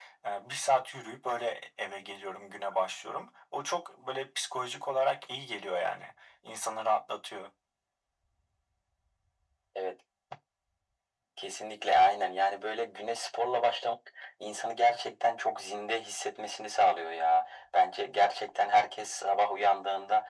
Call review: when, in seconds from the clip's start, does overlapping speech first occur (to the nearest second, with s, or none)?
none